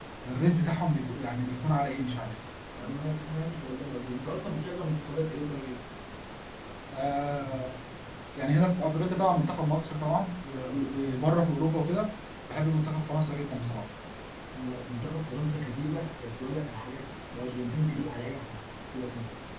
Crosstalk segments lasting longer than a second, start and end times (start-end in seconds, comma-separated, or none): none